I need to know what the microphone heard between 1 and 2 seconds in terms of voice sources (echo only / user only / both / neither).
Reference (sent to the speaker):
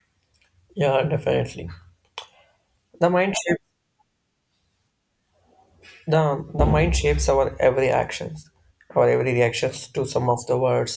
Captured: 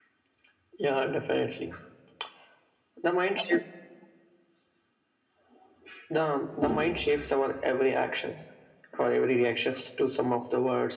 echo only